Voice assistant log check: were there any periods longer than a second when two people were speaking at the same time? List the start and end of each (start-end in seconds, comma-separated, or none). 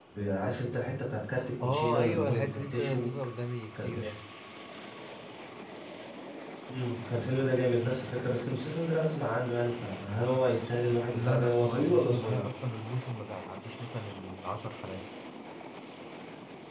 1.6-3.1, 11.1-12.4